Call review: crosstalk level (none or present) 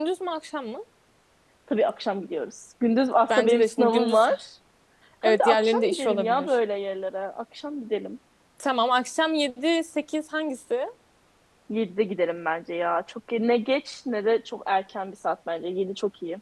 present